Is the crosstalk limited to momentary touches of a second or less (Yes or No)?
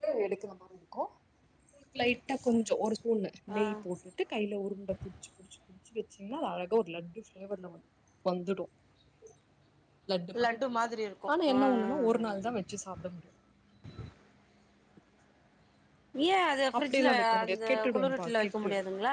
No